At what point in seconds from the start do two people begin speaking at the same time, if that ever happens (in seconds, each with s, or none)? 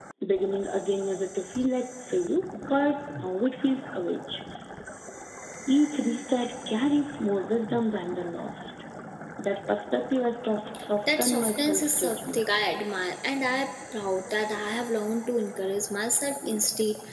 11.1 s